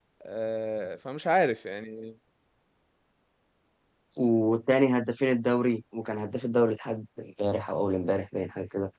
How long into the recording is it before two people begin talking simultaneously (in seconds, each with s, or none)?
none